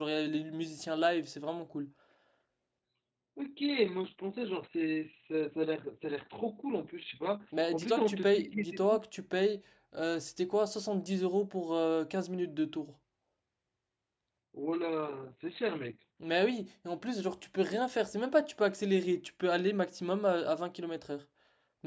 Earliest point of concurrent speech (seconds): 7.5 s

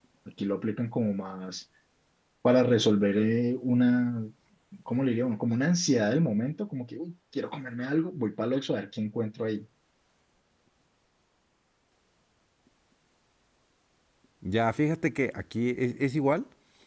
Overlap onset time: none

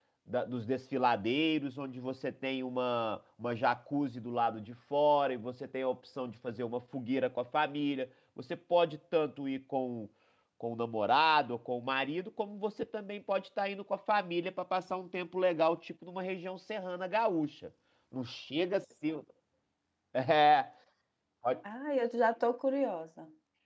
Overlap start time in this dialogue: none

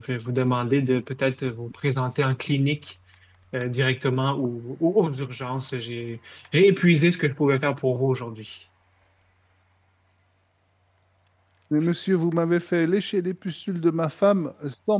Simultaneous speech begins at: none

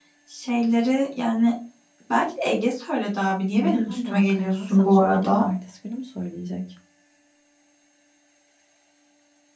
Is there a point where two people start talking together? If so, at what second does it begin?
3.6 s

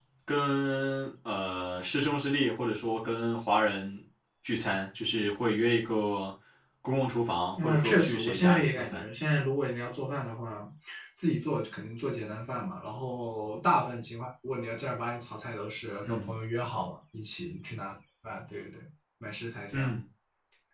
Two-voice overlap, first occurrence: 7.6 s

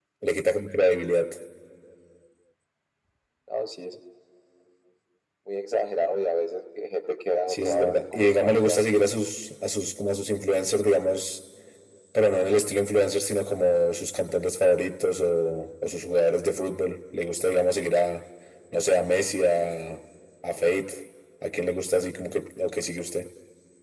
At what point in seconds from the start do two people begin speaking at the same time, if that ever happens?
7.5 s

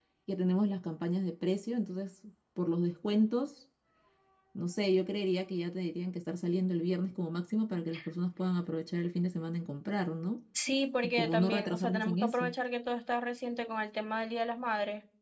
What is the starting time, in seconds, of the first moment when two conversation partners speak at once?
11.2 s

